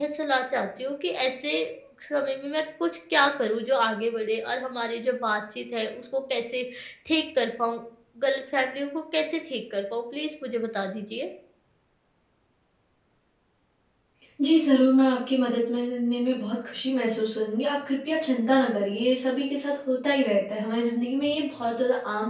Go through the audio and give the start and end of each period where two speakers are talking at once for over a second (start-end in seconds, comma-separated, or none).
none